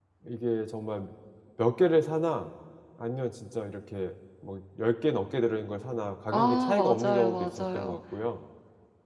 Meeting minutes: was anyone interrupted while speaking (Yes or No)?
Yes